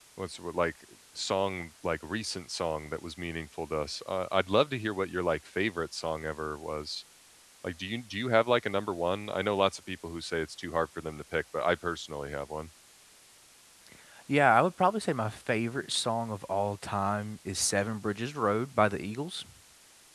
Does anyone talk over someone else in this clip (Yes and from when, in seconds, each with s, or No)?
No